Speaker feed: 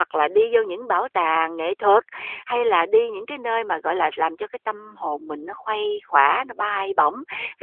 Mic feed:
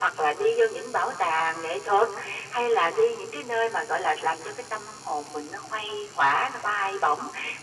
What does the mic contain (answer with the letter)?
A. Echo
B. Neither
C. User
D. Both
A